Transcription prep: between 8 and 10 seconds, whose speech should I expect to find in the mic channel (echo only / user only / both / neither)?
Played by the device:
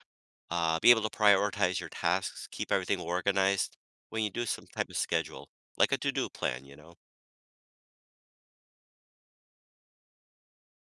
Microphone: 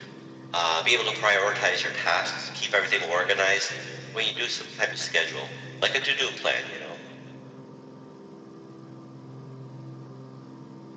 neither